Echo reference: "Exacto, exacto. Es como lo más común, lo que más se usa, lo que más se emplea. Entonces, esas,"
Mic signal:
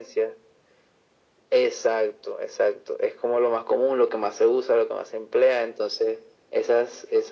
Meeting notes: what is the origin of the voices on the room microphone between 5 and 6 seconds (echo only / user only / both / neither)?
echo only